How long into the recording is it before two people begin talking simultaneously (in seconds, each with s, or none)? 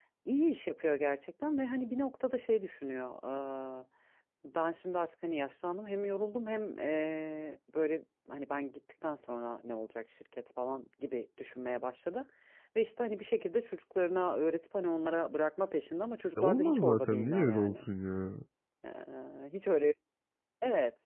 16.4 s